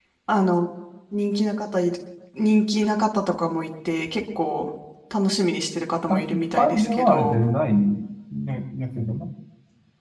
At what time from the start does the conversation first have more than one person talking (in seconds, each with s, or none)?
6.1 s